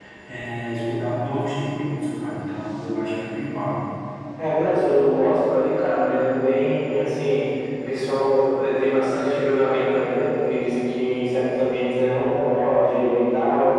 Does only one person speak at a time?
Yes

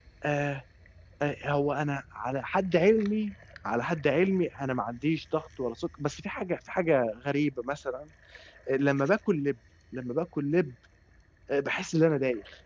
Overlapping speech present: No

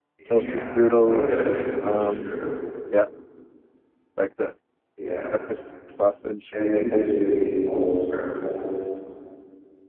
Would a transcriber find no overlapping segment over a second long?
No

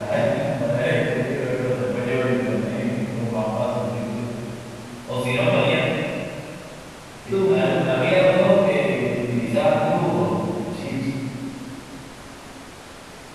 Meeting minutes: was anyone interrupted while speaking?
Yes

